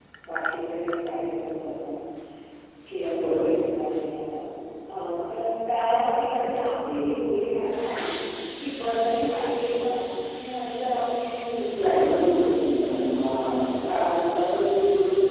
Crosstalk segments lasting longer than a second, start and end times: 11.8-13.1

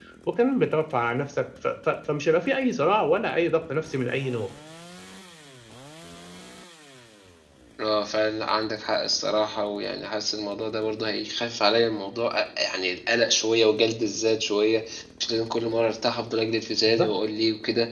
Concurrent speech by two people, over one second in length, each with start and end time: none

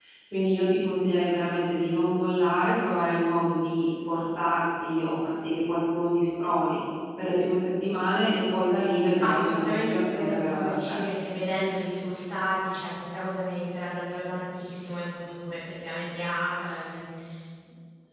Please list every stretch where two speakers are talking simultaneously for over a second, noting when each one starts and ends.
9.2-11.0

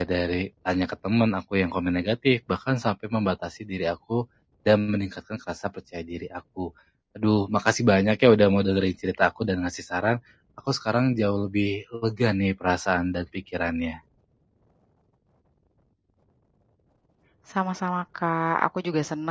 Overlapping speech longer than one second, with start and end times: none

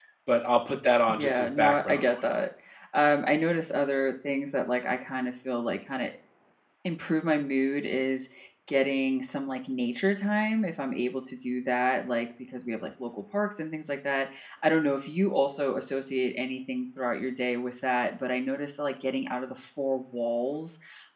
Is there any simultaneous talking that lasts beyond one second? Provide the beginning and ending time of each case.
1.1-2.4

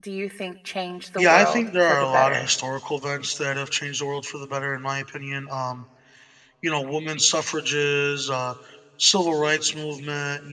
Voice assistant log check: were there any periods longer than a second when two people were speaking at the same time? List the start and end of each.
1.2-2.5

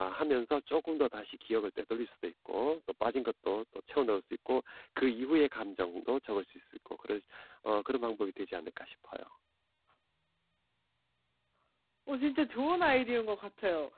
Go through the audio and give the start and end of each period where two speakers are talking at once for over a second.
none

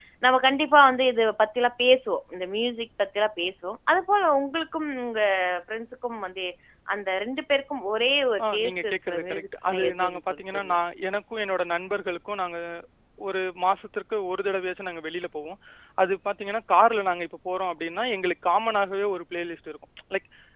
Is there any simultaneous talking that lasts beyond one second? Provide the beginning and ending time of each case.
8.5-10.8

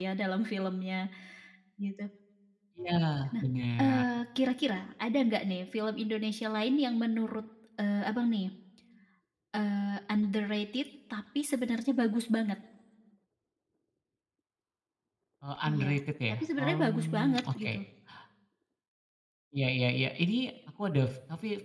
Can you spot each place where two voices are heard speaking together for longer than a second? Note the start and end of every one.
16.3-17.7

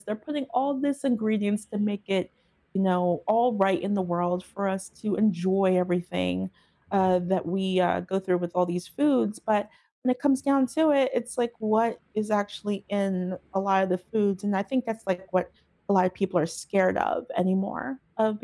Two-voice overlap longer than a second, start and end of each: none

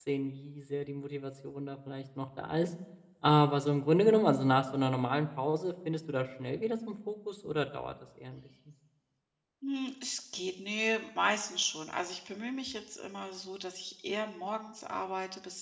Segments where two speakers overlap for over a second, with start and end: none

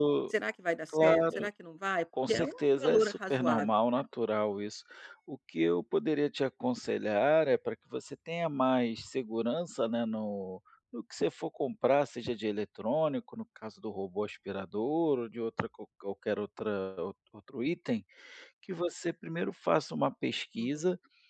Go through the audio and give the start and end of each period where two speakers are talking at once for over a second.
2.3-3.7

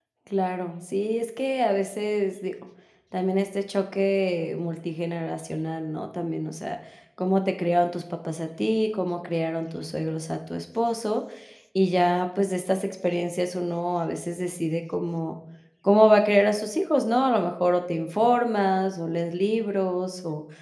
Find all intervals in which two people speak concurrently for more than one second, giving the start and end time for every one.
none

